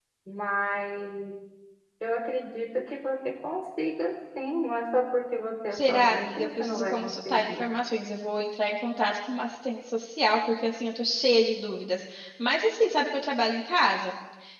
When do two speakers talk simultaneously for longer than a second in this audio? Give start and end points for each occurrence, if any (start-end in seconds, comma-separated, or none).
5.7-7.7